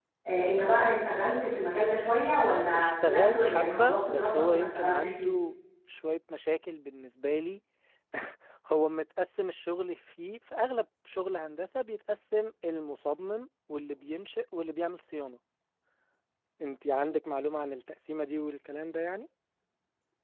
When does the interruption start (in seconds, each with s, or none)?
2.7 s